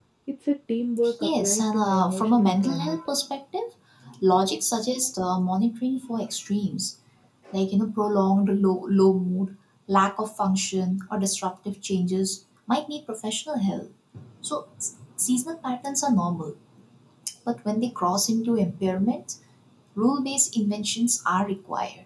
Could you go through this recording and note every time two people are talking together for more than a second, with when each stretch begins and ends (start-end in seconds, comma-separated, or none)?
1.2-3.0